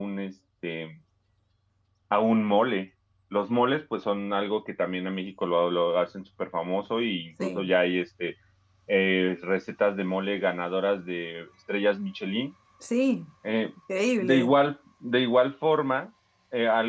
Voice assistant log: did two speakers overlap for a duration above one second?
No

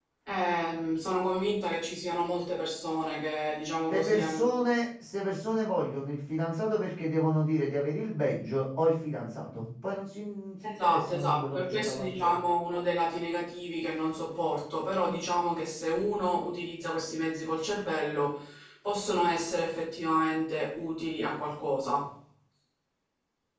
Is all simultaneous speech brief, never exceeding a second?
No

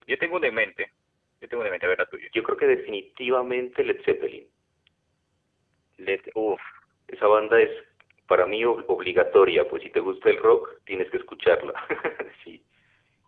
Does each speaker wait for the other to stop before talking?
Yes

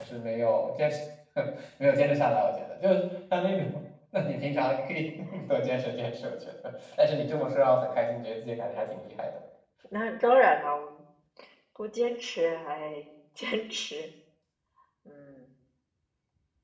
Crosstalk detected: No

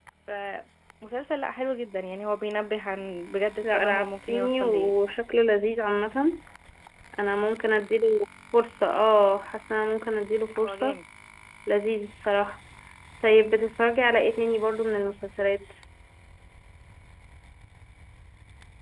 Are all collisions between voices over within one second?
No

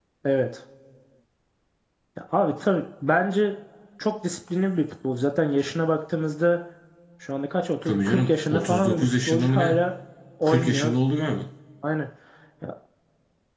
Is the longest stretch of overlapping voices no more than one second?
No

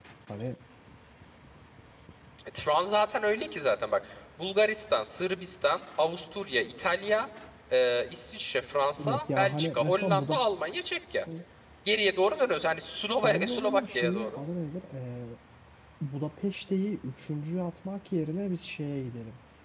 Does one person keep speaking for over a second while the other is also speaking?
Yes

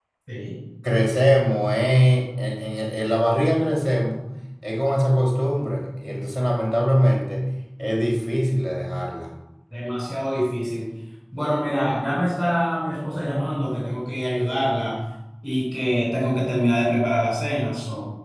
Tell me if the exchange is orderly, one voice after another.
Yes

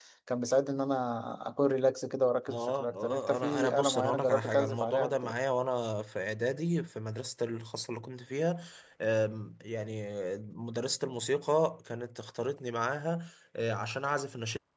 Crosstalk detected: Yes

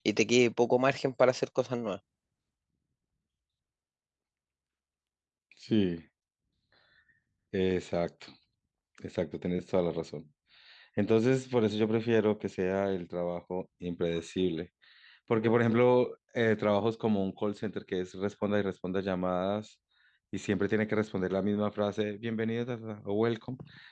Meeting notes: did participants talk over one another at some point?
No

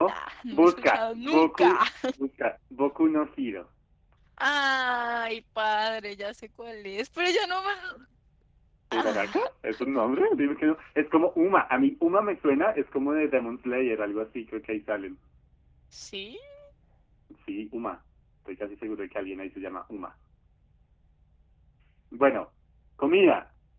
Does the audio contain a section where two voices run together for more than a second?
Yes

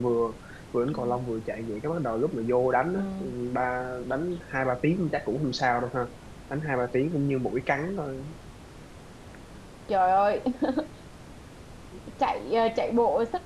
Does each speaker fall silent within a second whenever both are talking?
Yes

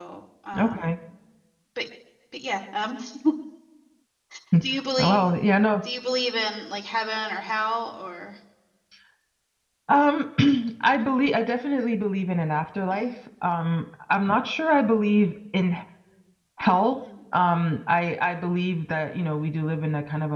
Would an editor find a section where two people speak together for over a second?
No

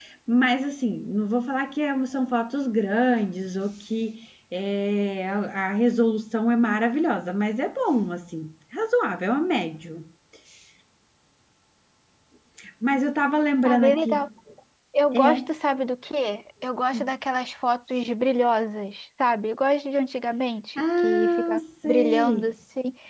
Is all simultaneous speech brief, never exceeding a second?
No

